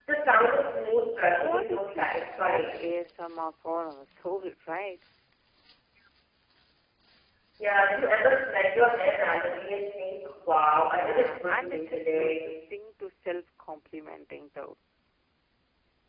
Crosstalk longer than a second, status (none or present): present